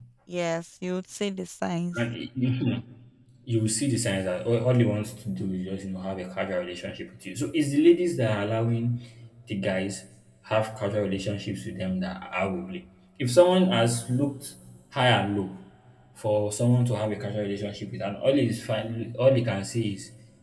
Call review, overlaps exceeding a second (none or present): none